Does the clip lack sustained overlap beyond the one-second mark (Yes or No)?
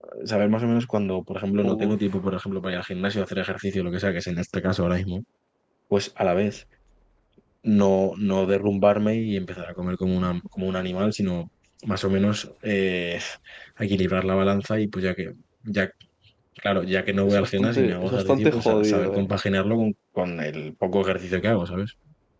No